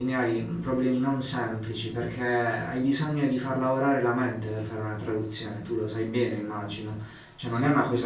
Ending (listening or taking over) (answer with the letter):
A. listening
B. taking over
A